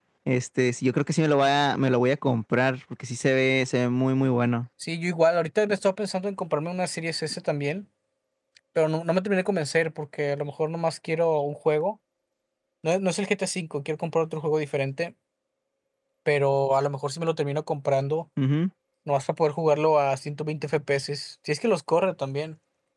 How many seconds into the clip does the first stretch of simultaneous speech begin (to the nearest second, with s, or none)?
none